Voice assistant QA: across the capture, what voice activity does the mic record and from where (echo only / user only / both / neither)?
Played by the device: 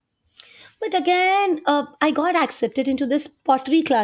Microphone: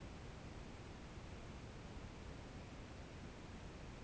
neither